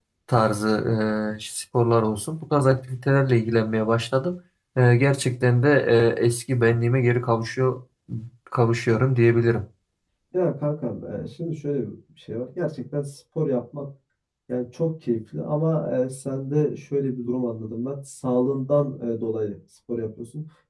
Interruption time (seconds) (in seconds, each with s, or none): none